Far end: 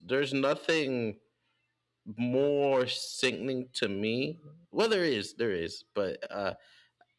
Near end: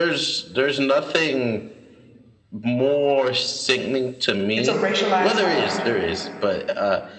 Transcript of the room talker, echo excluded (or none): It's a racialized hierarchy.